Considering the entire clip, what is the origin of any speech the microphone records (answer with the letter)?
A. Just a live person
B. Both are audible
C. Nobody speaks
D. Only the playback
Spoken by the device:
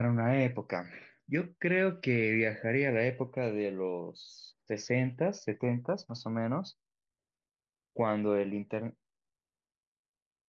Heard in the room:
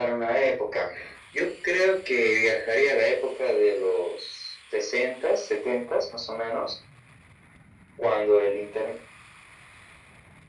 D